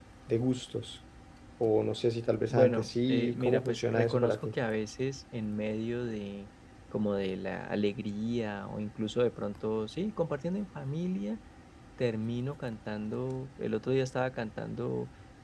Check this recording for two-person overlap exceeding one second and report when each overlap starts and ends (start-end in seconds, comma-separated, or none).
2.5-4.5